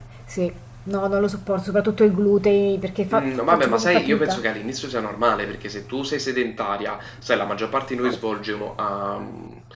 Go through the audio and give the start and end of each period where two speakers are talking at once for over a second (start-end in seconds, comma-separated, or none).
3.1-4.4